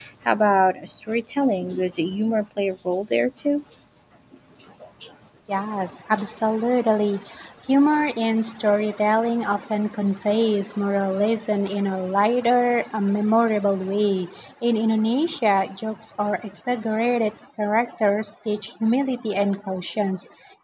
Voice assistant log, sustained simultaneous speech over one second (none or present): none